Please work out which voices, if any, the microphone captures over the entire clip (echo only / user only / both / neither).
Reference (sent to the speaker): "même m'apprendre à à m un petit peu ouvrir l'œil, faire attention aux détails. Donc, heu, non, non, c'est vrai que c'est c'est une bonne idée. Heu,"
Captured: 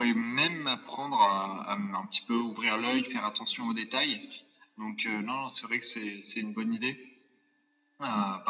echo only